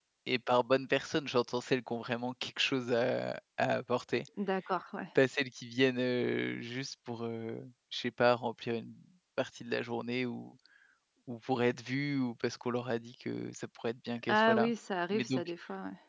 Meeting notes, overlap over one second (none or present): none